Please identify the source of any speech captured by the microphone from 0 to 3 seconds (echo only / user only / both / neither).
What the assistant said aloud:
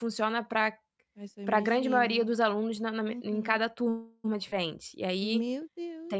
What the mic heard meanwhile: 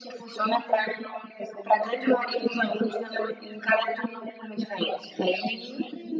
echo only